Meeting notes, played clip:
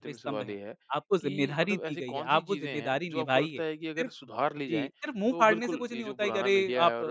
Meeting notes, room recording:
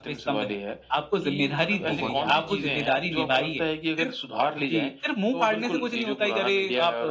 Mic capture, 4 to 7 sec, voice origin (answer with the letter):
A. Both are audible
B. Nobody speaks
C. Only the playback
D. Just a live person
C